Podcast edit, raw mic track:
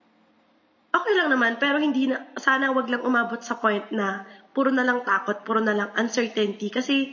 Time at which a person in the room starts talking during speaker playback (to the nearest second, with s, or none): 1 s